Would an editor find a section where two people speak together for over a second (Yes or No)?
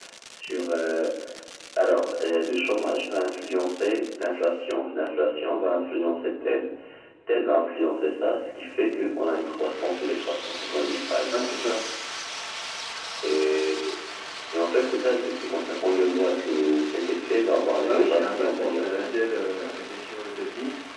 Yes